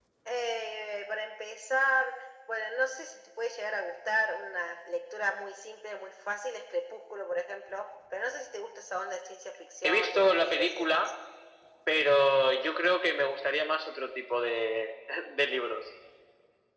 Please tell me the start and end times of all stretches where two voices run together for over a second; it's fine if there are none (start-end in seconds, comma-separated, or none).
9.8-11.1